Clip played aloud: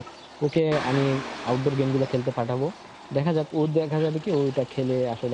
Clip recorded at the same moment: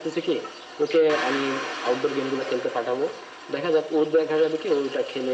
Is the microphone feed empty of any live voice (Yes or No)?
Yes